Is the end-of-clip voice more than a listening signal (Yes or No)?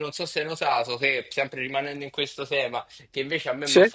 No